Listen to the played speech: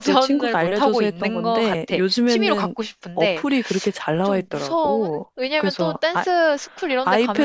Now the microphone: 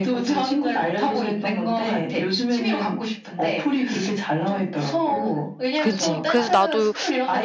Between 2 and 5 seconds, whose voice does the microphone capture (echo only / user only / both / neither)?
echo only